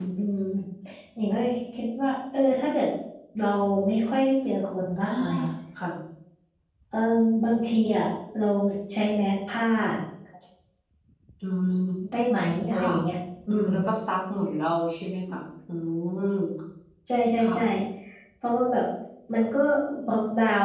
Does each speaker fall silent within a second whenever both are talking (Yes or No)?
Yes